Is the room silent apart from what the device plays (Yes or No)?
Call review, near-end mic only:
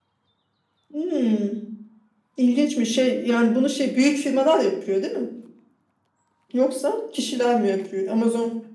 Yes